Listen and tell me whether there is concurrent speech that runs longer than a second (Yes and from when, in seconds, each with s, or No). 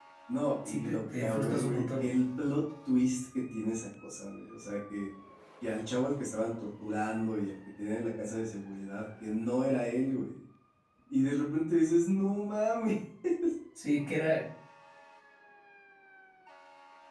Yes, from 0.6 s